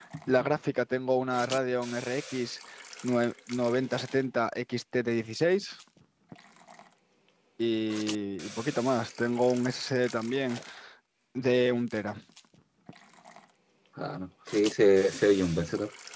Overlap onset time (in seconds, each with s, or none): none